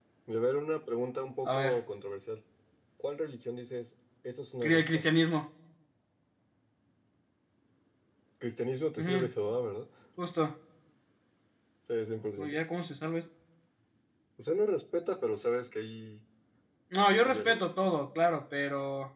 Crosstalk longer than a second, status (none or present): none